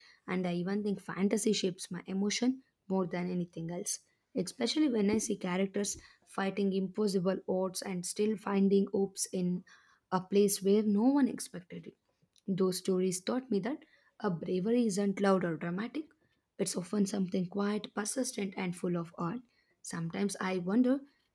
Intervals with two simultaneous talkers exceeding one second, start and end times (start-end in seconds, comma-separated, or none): none